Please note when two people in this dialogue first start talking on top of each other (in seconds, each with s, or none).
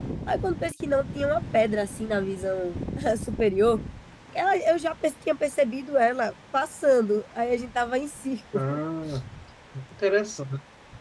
none